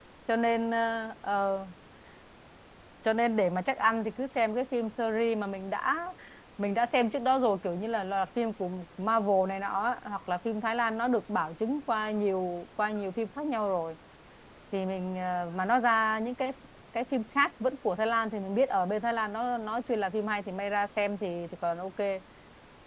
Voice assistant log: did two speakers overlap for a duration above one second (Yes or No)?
No